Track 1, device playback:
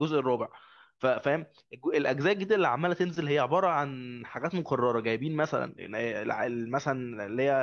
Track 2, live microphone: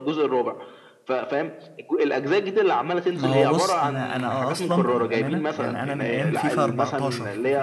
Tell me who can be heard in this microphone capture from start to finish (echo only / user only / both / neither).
both